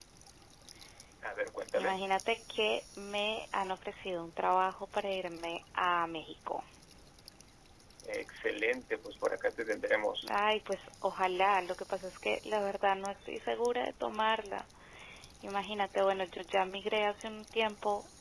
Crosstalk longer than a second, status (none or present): none